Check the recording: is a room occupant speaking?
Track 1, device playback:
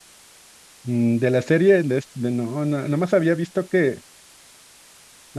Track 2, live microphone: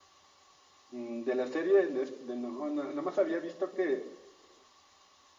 No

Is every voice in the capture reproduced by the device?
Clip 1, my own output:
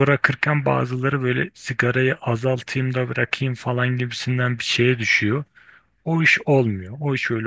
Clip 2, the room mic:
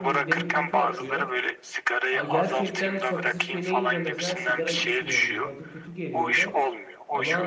No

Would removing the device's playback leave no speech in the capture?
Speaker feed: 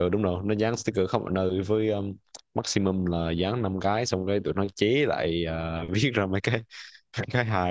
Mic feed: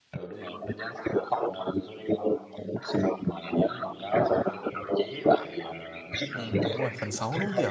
No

